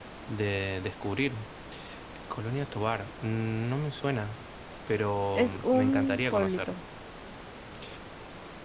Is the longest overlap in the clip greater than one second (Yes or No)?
Yes